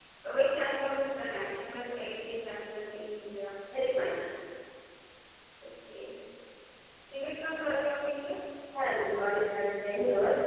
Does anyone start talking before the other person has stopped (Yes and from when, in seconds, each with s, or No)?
No